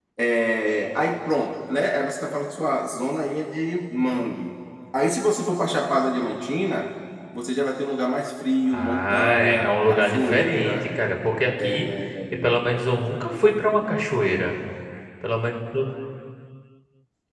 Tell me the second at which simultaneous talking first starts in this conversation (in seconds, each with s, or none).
8.7 s